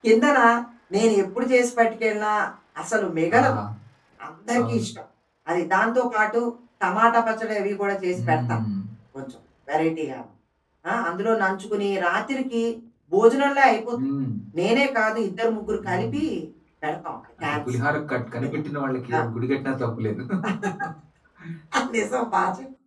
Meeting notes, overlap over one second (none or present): none